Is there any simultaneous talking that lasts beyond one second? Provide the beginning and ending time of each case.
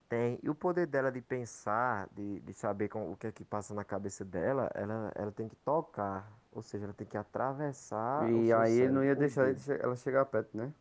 8.2-9.6

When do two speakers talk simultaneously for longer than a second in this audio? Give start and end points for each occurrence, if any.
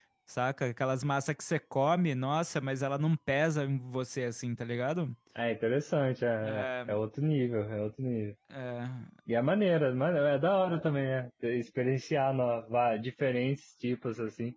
none

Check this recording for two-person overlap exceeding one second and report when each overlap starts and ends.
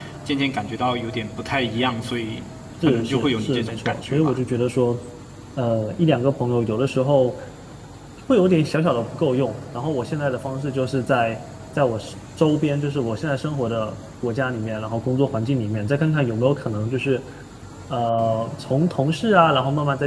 2.8-4.4

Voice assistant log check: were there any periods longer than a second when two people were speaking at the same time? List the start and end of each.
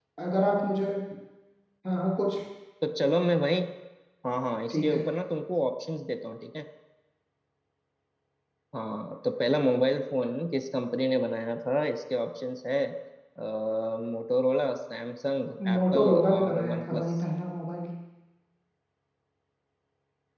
15.8-17.0

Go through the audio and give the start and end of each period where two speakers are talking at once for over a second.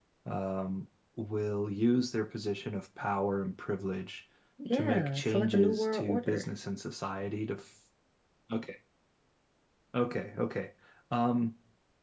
4.7-6.4

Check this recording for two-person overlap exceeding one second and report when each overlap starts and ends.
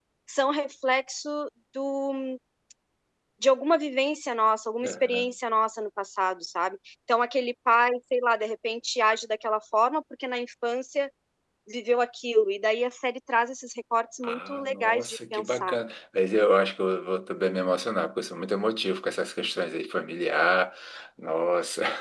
14.2-15.8

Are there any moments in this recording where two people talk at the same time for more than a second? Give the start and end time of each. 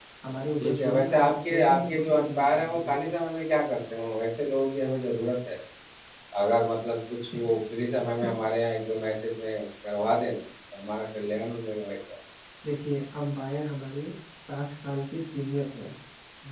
0.6-3.0

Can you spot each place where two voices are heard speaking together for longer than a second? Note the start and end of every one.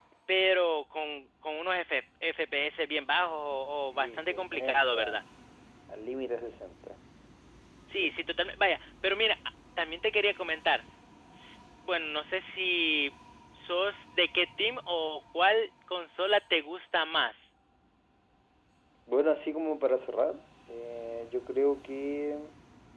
3.9-5.2

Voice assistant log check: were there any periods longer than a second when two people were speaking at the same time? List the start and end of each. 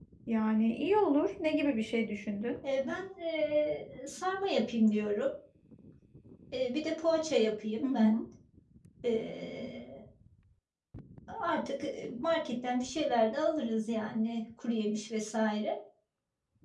none

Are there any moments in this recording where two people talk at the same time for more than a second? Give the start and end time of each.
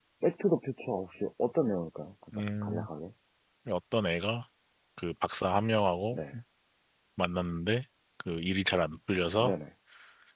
none

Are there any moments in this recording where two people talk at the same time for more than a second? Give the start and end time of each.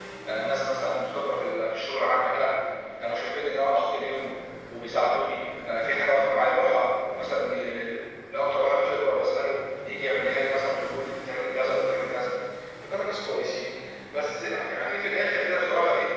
none

